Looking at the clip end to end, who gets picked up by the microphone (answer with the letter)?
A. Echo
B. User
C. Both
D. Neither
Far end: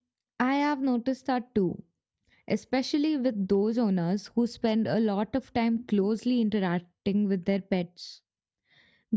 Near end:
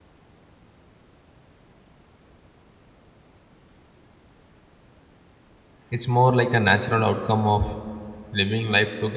B